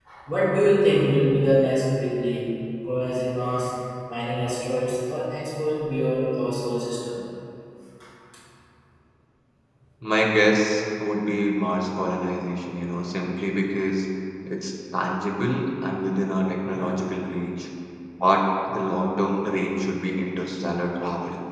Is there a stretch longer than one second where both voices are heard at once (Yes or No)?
No